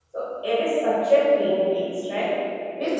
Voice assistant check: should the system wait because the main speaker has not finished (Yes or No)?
Yes